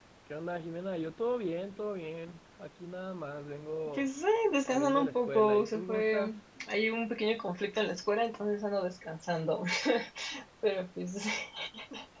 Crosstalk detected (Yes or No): Yes